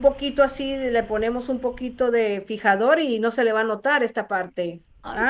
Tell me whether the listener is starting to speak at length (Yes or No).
Yes